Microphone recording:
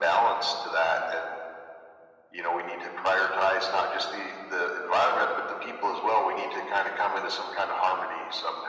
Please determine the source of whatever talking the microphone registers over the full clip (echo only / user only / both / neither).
echo only